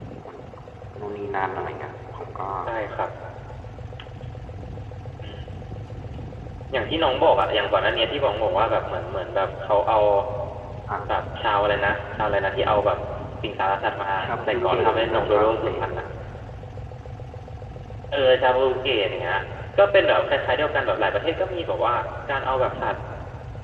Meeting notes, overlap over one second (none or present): present